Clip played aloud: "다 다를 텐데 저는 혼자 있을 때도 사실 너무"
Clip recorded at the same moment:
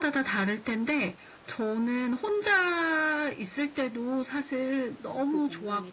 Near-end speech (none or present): present